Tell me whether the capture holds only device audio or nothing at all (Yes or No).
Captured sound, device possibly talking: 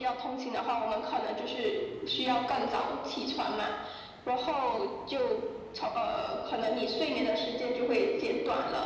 Yes